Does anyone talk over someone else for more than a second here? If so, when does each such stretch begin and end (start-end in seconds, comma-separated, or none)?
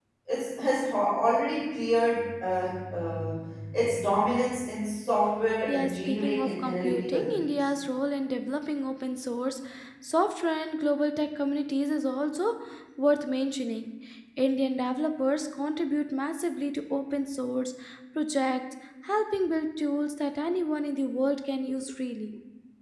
5.6-7.6